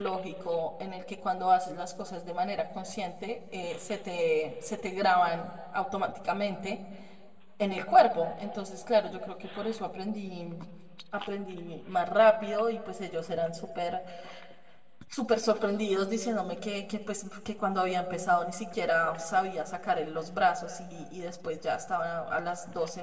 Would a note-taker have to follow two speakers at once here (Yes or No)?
No